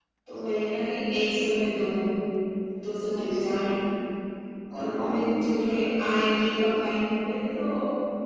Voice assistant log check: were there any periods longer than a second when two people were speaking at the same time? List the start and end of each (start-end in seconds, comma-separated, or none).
4.8-6.8